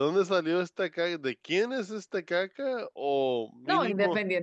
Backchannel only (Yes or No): No